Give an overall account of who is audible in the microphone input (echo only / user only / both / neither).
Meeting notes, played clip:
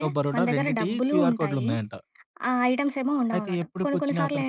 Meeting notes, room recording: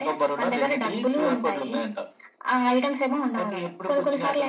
echo only